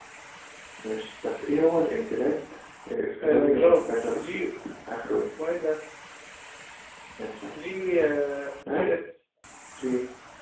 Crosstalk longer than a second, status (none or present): present